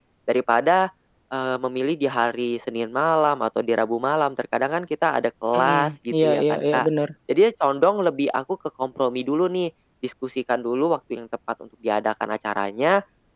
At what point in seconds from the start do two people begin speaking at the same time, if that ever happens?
5.5 s

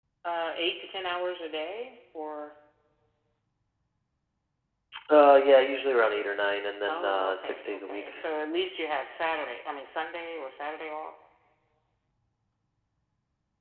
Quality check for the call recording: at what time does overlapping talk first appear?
6.9 s

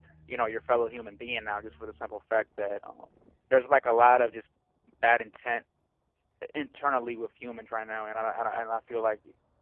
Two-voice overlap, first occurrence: none

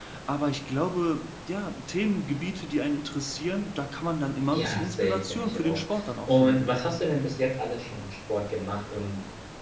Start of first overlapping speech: 4.5 s

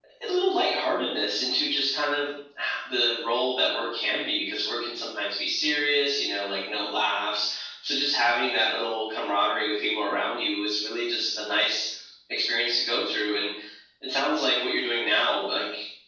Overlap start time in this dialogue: none

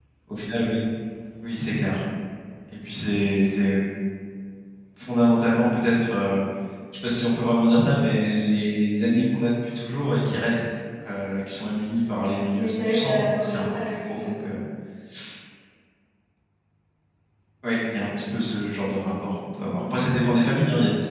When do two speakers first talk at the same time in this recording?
12.5 s

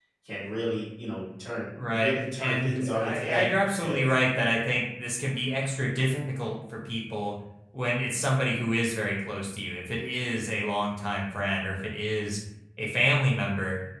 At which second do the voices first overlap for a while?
1.9 s

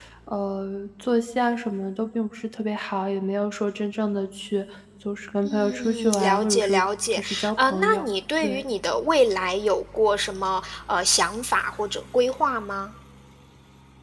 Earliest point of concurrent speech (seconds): 5.4 s

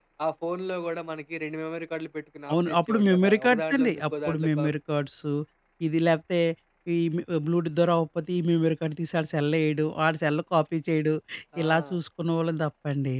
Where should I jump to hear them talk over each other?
2.5 s

